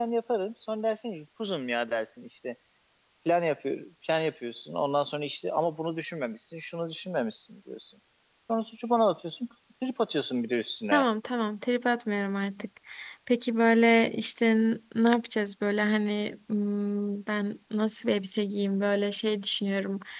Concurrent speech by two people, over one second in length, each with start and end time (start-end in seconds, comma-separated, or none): none